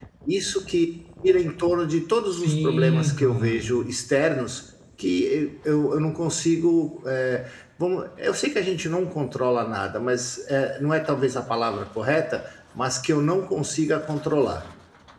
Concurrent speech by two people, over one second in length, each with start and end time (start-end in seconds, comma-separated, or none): 2.3-3.8